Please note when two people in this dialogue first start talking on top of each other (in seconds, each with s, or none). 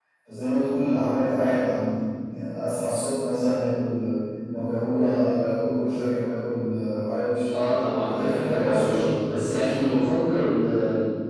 8.1 s